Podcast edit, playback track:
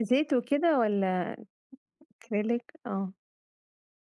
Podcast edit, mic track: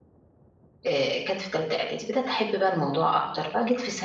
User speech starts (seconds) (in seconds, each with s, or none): 0.9 s